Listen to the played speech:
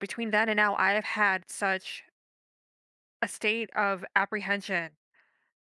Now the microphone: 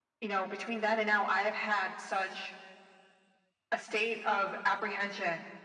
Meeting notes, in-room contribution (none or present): none